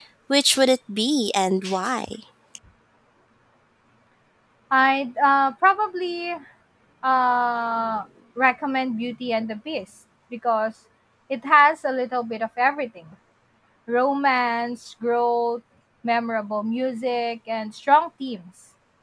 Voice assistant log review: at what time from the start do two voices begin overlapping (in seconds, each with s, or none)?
none